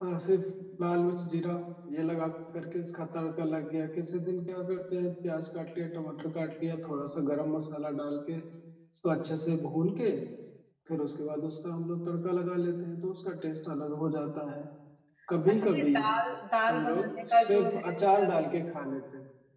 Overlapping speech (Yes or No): Yes